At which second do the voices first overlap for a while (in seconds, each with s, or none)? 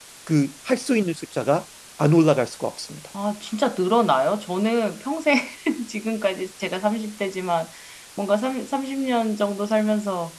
none